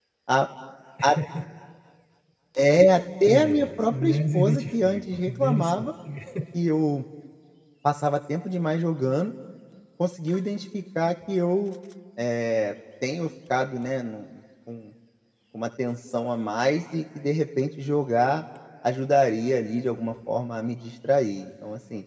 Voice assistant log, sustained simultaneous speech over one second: present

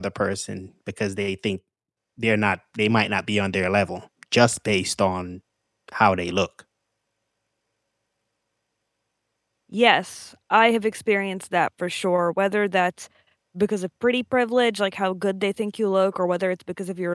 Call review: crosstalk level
none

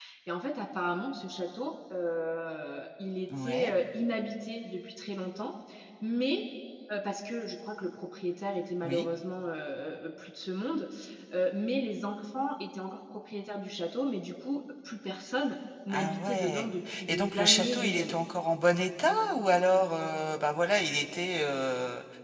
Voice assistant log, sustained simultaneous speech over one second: present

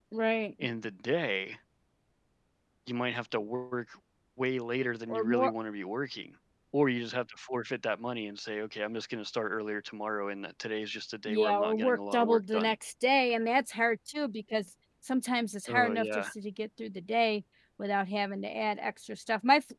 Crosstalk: present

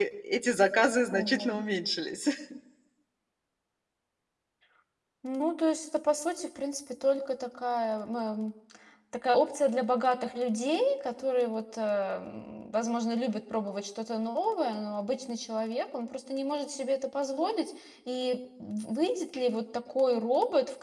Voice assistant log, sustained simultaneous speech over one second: none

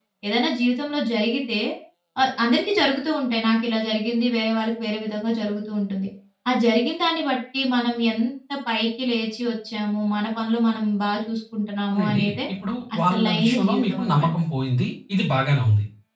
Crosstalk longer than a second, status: present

